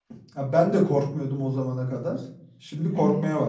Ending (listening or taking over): taking over